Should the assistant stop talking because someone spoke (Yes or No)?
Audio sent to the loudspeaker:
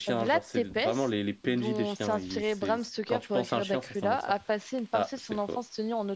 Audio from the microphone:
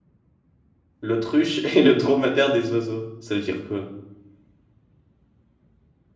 Yes